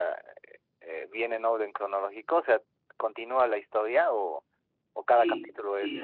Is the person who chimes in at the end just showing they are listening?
No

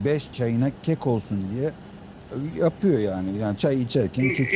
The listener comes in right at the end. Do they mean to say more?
Yes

